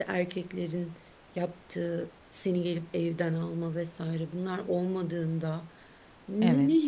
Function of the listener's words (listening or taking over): listening